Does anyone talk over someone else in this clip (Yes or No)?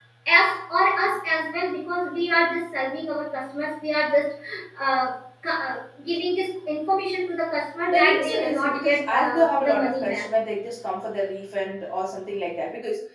Yes